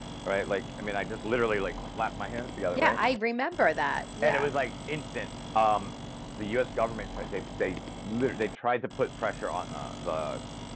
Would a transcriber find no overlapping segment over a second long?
Yes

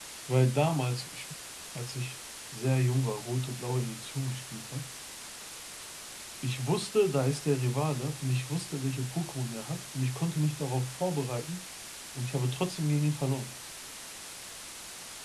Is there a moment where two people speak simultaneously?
No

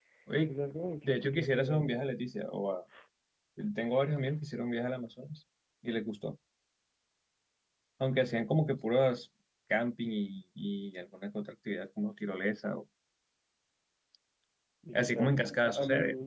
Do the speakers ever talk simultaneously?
Yes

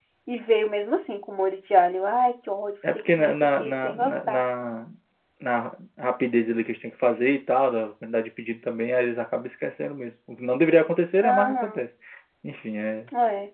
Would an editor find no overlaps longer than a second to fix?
No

